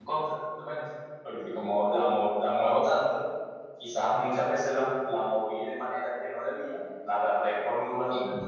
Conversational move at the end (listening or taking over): listening